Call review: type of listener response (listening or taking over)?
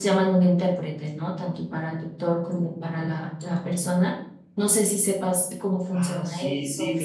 taking over